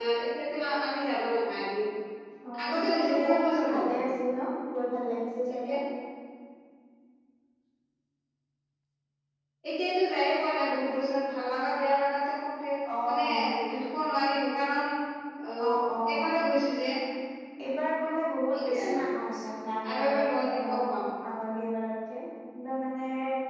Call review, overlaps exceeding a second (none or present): present